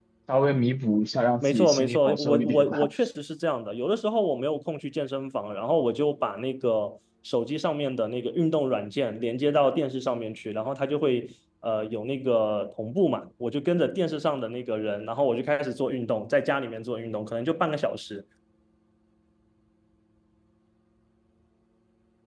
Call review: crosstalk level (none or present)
present